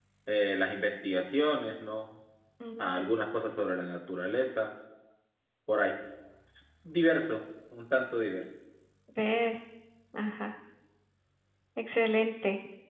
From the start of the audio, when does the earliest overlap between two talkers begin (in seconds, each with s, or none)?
none